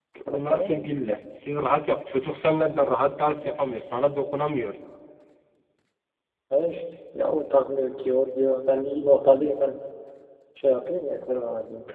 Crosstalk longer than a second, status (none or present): none